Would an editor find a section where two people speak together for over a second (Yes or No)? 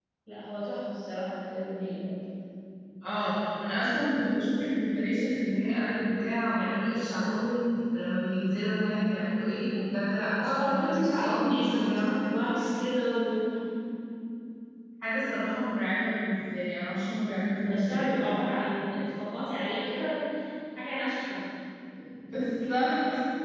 Yes